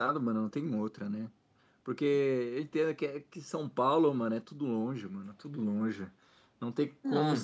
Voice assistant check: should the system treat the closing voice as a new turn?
No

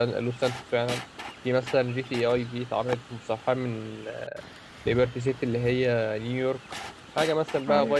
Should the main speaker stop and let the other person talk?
No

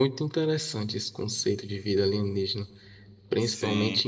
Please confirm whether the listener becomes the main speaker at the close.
No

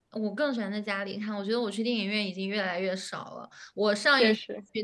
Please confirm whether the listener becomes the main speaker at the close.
No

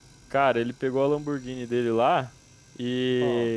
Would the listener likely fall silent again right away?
Yes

